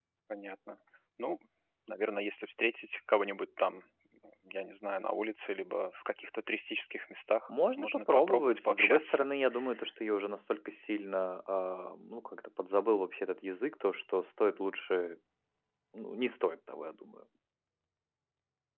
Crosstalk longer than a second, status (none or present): present